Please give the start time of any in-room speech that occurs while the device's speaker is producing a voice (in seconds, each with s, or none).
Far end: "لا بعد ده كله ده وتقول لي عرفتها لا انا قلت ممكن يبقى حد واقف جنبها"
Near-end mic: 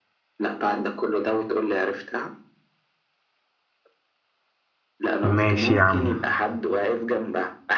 5.2 s